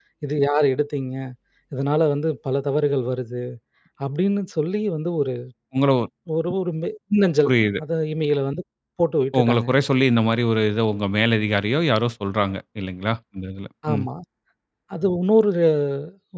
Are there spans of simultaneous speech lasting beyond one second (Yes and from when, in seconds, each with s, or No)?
No